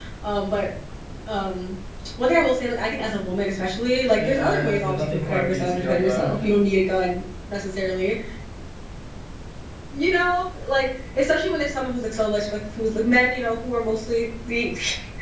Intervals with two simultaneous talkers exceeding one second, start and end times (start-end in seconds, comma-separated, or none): 4.2-6.3